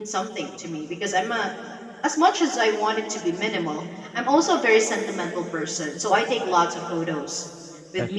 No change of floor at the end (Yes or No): Yes